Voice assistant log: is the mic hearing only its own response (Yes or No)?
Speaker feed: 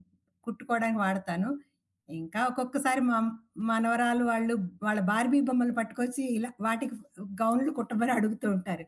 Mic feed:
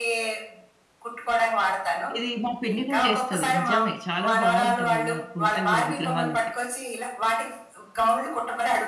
No